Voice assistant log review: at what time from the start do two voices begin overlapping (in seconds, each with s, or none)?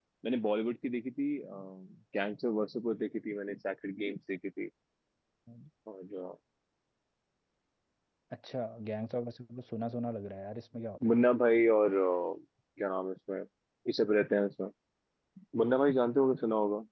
none